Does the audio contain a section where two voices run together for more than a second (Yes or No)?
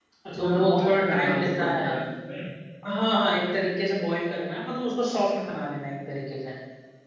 Yes